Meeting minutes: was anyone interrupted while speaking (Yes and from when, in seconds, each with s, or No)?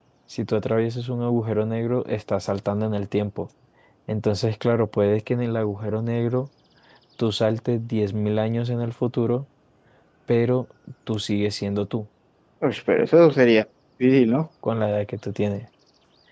No